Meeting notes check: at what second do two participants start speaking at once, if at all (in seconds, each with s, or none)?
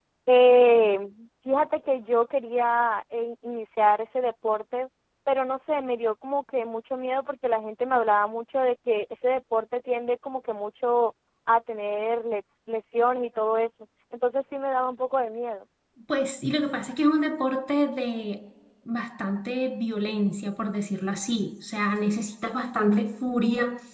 none